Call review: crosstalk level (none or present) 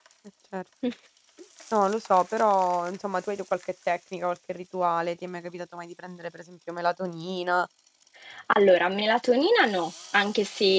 none